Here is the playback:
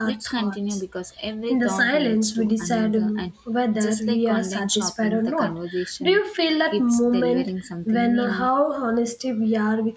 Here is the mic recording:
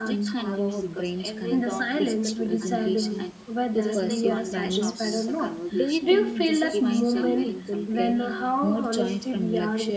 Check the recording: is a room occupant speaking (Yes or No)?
Yes